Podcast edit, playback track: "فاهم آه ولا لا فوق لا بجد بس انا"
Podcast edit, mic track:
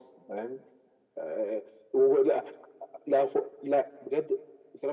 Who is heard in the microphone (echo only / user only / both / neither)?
echo only